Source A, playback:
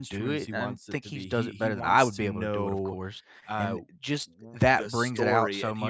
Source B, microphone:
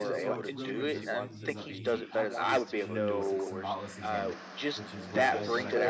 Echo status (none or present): present